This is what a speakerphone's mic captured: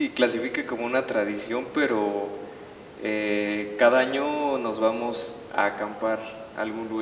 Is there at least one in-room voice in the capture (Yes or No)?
Yes